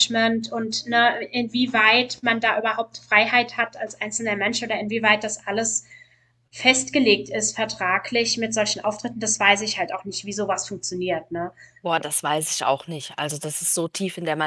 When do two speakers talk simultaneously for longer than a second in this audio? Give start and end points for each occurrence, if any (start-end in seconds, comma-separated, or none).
none